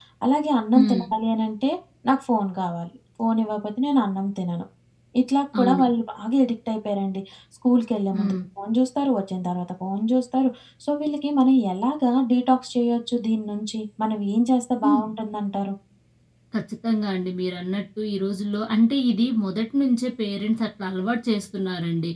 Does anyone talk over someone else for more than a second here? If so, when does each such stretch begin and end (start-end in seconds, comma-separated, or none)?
none